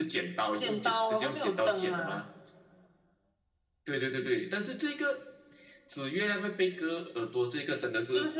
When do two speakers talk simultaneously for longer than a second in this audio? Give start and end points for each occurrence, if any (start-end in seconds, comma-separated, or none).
0.6-2.2